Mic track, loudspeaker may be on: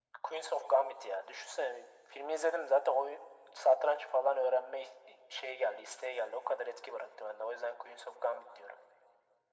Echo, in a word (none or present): present